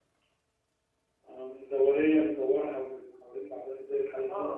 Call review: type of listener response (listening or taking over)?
taking over